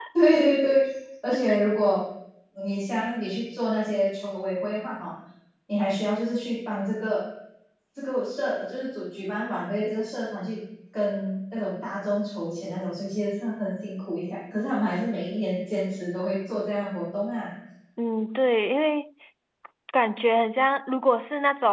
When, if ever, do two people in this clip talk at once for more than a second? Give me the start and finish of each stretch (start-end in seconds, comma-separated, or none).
none